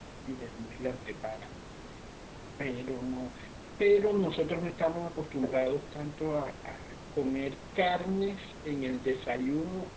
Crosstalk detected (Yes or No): No